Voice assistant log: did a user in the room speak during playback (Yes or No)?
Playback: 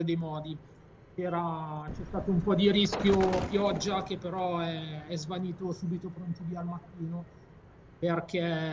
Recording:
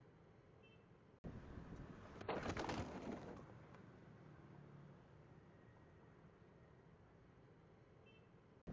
No